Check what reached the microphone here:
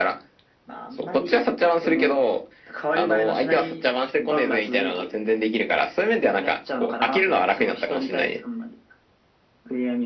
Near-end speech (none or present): none